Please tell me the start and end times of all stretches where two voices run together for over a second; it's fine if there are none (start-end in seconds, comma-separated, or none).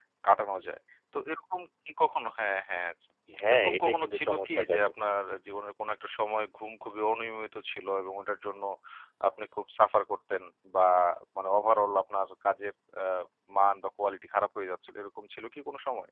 3.5-4.8